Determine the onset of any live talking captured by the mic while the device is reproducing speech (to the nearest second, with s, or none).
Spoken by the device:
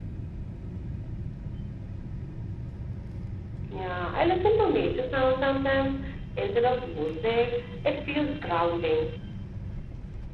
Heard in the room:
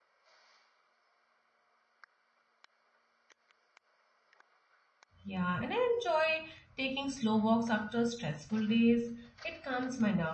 5 s